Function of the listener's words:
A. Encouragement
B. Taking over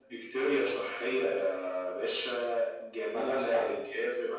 A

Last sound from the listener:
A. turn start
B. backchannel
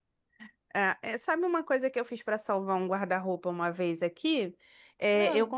B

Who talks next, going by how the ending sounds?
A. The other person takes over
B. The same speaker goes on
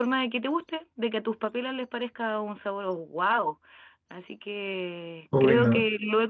B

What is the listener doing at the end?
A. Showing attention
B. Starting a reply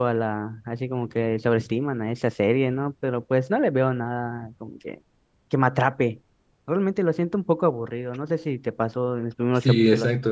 B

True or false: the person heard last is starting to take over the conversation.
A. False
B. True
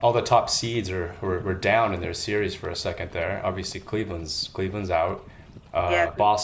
A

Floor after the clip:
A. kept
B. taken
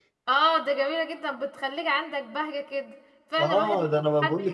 B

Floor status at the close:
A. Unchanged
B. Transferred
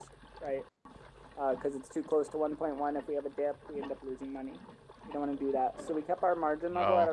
A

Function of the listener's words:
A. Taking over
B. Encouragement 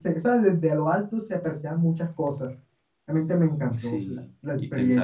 A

